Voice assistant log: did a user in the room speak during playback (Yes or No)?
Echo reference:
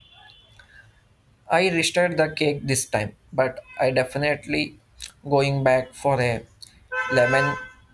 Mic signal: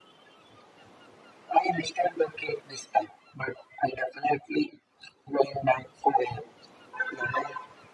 No